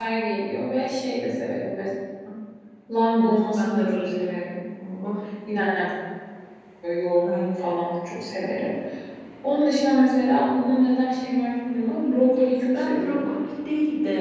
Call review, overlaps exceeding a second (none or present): present